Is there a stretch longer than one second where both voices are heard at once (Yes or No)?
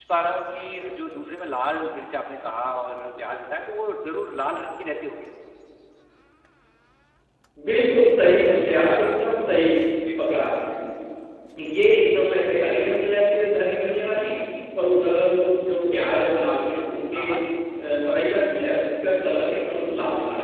No